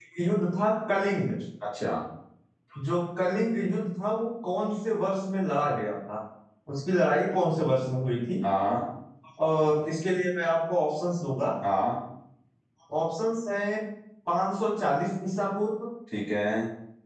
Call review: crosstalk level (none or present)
none